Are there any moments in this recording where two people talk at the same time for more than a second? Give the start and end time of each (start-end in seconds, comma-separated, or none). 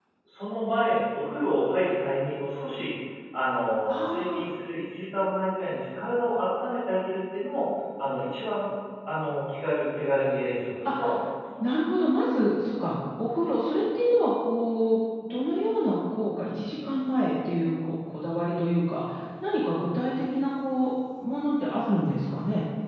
none